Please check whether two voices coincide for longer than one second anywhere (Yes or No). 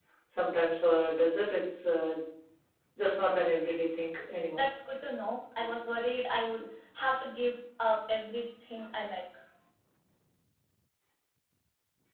No